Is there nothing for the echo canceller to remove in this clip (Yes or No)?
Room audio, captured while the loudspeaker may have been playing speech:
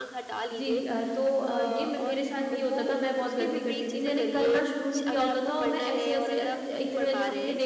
No